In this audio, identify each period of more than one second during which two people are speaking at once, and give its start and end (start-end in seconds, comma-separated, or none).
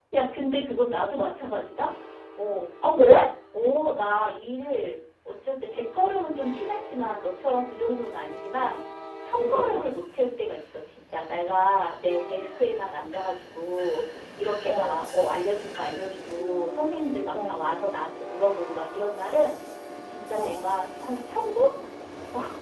none